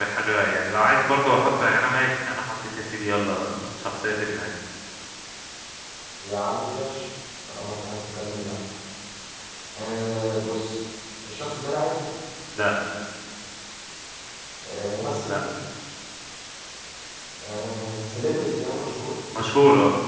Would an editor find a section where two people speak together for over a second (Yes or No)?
No